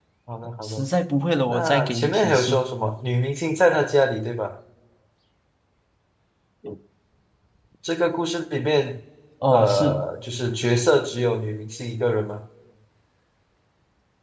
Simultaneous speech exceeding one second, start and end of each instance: 1.5-2.7

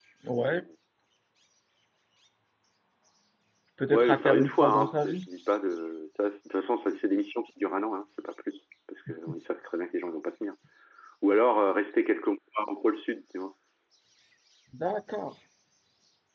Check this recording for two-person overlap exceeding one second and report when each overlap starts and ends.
3.9-5.2

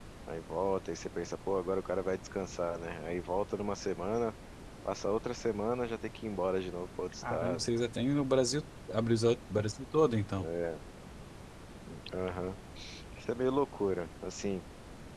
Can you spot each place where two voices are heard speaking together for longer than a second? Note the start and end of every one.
none

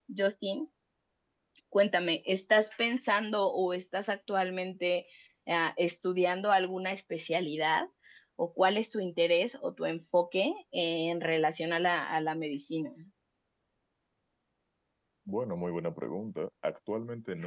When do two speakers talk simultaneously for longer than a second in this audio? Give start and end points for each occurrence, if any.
none

